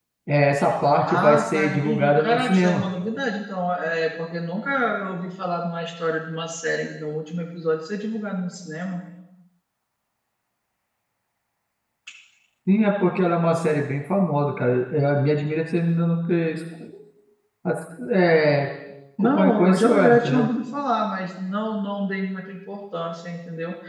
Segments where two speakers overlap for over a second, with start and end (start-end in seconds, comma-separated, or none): 1.0-2.8, 19.2-20.5